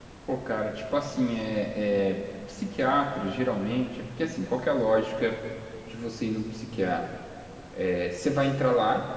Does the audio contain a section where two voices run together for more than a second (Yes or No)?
No